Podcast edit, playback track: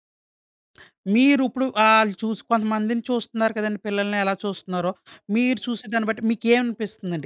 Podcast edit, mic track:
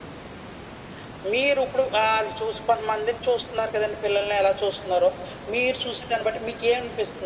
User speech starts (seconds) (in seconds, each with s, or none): none